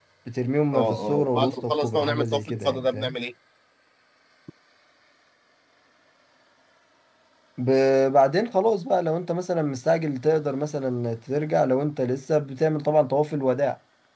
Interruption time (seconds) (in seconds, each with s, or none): 0.7 s